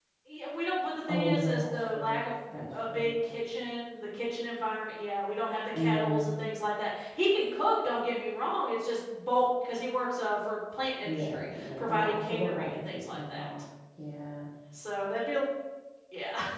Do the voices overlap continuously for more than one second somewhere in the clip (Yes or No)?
Yes